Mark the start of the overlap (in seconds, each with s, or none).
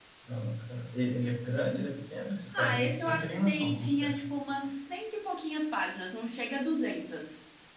2.5 s